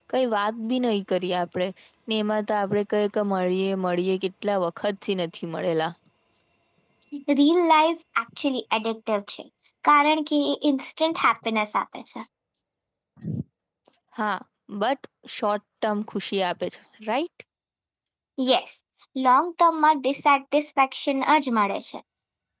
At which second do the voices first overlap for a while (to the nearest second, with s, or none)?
none